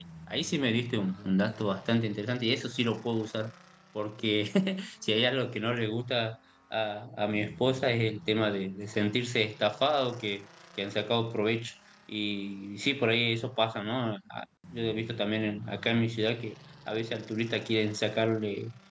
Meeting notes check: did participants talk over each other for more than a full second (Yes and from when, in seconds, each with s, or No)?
No